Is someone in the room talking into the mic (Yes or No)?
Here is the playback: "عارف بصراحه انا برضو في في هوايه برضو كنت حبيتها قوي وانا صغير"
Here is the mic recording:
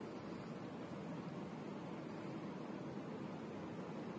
No